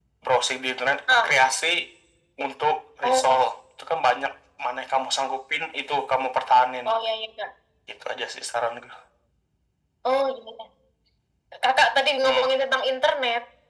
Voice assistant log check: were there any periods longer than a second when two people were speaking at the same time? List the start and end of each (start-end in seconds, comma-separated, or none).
none